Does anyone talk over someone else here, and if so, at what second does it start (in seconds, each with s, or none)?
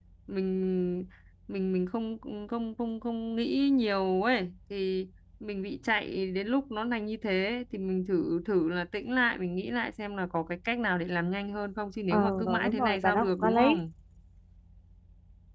12.1 s